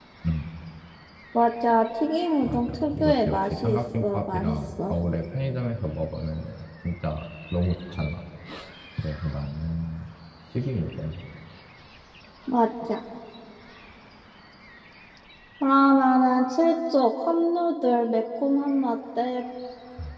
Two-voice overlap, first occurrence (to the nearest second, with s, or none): 2 s